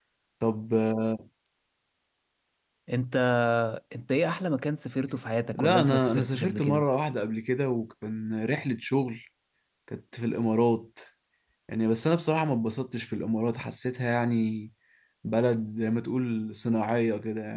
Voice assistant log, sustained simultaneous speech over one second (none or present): present